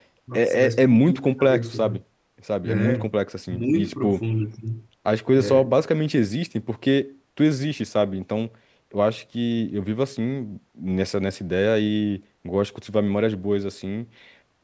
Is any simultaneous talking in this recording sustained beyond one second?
Yes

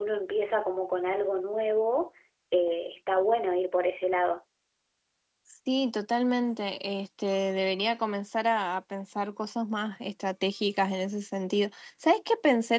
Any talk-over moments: No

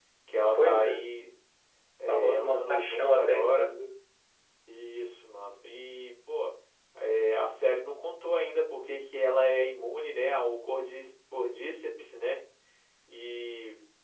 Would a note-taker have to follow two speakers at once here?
Yes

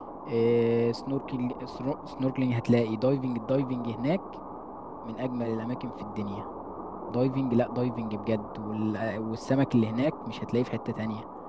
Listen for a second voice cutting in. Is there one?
No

